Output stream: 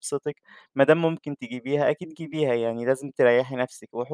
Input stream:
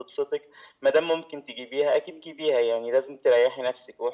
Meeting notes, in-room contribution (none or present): none